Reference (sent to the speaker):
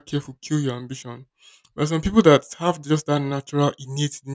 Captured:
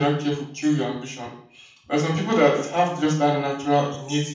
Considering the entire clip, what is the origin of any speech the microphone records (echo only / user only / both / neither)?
echo only